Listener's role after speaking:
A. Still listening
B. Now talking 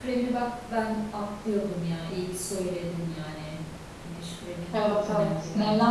B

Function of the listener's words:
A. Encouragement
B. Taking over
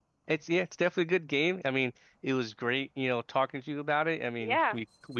A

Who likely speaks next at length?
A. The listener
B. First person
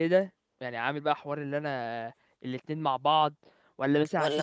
B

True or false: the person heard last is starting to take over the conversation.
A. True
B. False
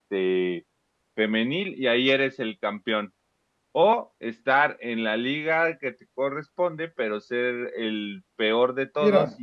B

